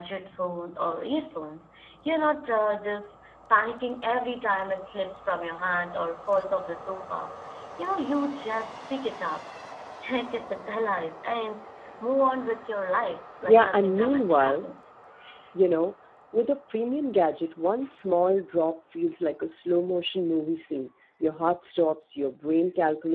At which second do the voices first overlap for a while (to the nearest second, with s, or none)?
13 s